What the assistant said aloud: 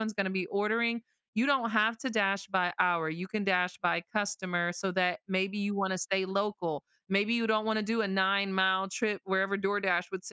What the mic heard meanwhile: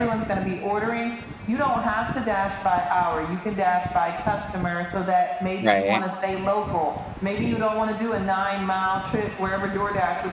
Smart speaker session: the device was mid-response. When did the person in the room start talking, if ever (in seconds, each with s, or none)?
5.6 s